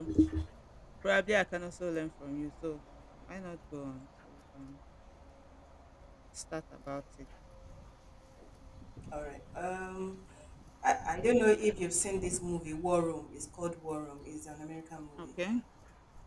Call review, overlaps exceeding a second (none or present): none